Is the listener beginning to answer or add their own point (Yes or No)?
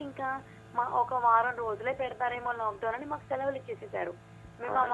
No